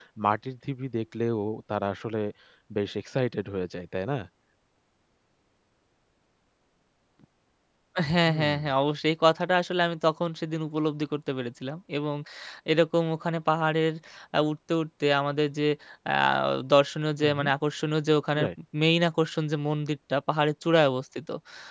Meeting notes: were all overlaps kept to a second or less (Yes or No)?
Yes